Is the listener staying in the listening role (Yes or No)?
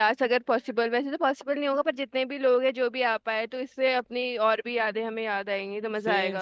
No